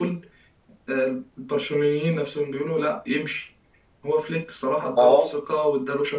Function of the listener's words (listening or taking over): listening